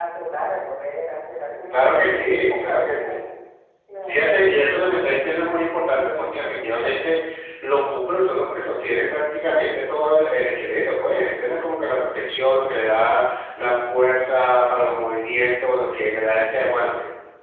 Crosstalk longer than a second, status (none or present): present